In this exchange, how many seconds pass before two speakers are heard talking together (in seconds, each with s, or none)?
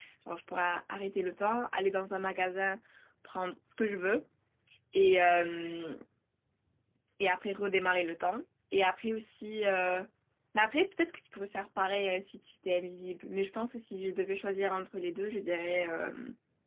none